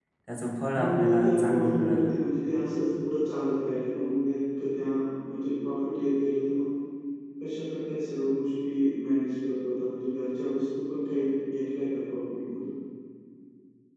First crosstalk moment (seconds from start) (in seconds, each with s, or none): 0.8 s